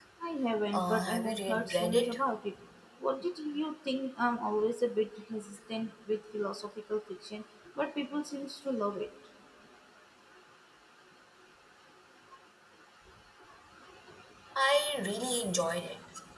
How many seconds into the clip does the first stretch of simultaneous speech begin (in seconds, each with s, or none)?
0.7 s